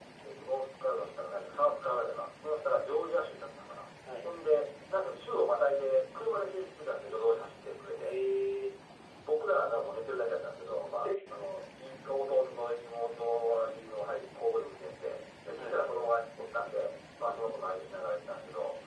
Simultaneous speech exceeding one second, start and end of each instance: none

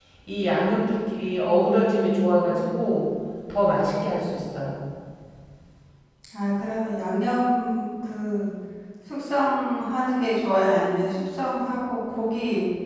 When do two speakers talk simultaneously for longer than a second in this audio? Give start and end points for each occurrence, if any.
1.4-3.0

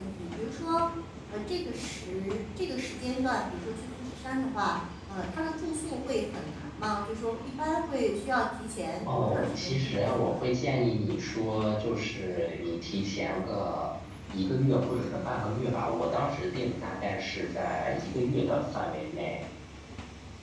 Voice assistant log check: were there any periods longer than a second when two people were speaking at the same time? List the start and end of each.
9.1-10.4

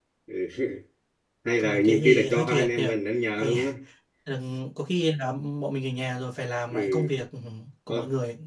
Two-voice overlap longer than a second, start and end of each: 1.6-2.8

